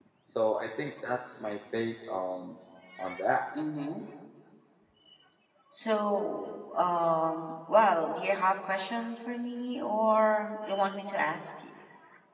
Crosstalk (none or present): none